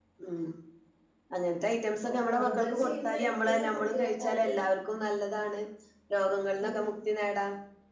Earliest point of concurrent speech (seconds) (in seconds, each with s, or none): 2.0 s